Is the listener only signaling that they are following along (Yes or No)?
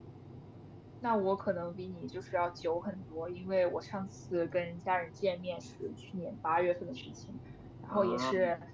Yes